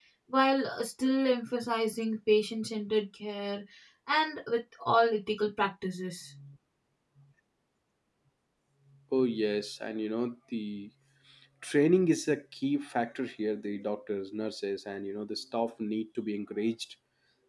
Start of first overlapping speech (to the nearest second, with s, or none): none